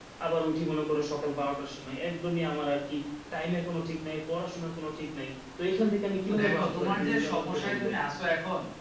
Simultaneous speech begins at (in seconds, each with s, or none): 6.3 s